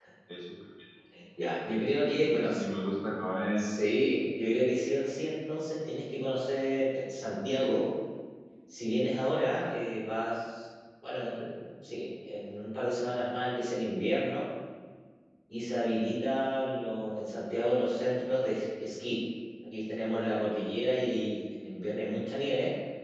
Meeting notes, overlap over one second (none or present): none